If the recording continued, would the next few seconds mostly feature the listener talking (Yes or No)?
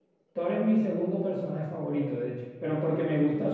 No